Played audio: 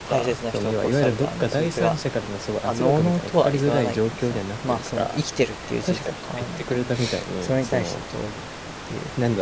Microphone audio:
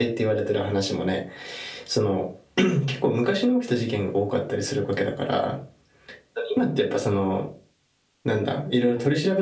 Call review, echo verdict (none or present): none